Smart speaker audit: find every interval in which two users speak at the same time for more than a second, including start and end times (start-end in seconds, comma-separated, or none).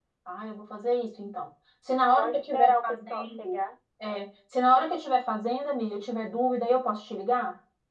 2.0-3.6